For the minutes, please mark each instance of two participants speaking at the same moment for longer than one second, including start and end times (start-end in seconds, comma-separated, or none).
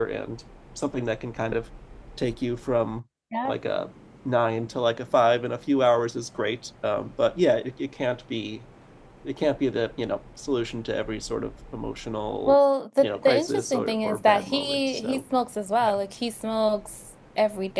13.0-15.2